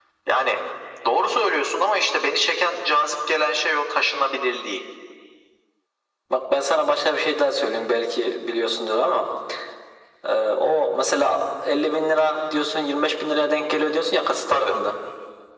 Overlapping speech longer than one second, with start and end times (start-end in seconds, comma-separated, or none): none